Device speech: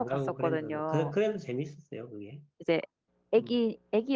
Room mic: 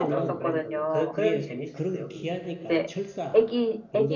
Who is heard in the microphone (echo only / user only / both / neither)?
both